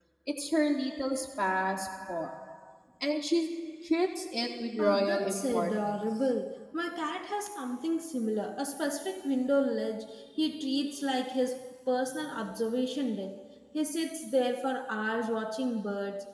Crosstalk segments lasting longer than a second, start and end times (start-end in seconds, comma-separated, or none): 4.8-6.0